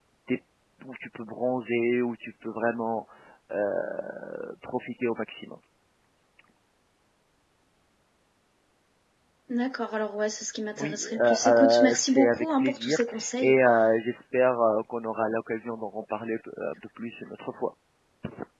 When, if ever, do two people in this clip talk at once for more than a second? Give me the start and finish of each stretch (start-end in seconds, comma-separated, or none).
10.8-13.6